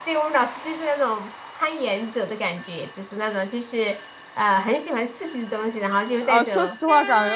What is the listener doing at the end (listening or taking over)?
taking over